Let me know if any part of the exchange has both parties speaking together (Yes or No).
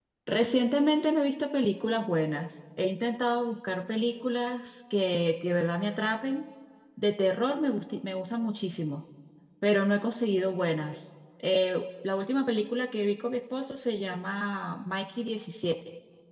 No